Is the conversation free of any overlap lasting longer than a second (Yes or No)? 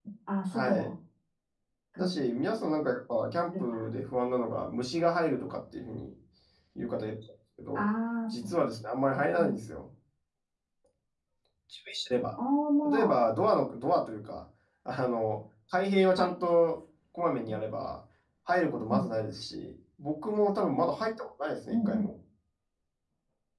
Yes